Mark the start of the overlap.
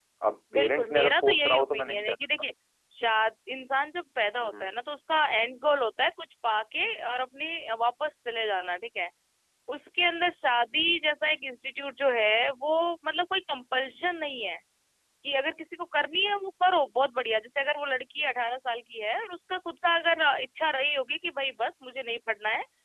0.5 s

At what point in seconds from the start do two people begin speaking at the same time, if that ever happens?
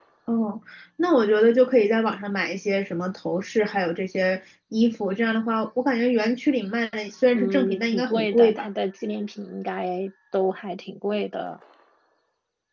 7.3 s

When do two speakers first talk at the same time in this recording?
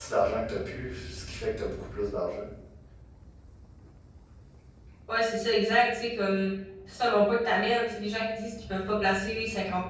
none

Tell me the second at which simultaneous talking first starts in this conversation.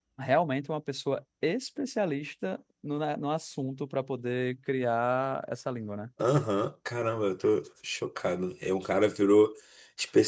none

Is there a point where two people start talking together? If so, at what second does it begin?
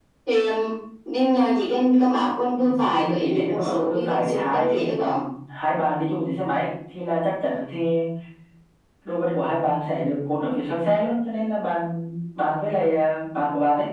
2.6 s

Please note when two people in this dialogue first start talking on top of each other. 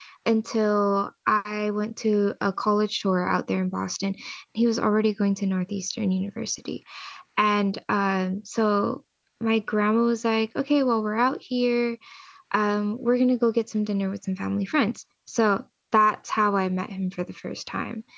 none

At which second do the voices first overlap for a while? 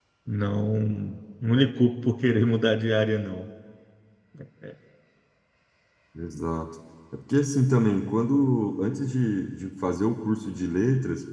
none

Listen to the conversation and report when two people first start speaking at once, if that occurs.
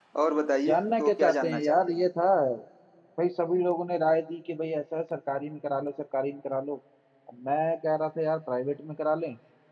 0.7 s

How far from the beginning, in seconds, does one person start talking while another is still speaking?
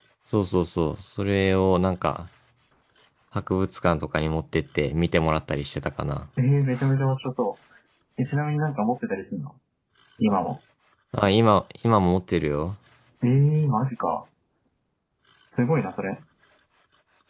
none

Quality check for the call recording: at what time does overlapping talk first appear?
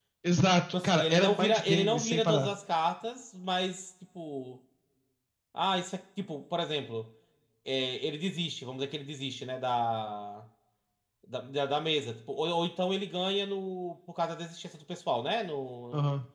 0.8 s

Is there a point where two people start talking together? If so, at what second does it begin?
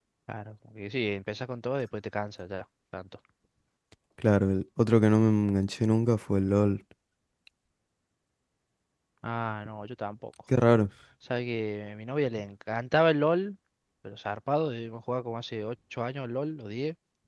none

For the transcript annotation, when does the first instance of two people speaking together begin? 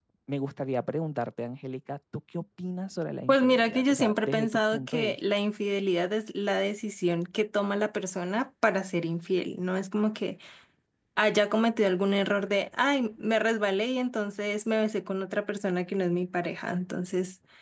3.3 s

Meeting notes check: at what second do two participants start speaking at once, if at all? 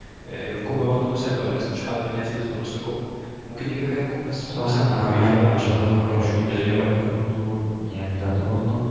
4.5 s

